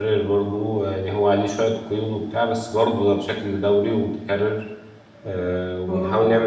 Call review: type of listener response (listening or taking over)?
listening